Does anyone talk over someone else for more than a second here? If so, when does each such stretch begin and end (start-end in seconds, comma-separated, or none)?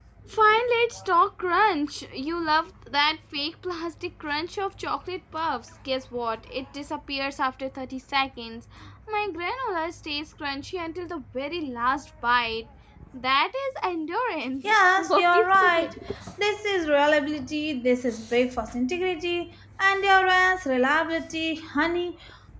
14.6-15.9